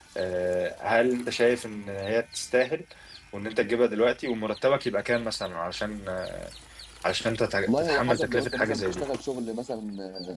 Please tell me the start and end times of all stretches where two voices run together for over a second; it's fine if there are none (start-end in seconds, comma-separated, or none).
7.6-9.0